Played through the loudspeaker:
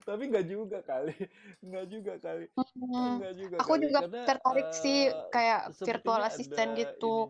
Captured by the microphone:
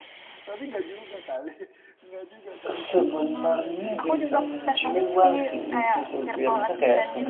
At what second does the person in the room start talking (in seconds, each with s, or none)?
2.7 s